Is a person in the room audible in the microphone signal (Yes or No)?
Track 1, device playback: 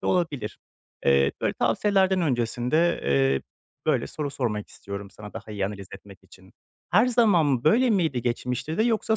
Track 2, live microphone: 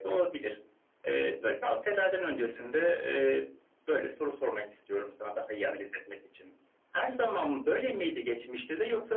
No